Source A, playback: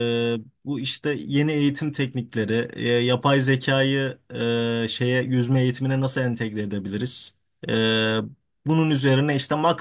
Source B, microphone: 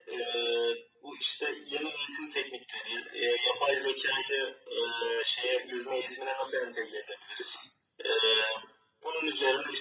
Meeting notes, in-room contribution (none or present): none